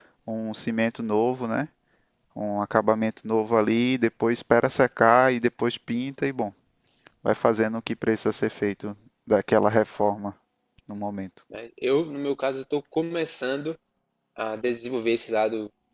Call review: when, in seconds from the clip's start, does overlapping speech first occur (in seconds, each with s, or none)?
none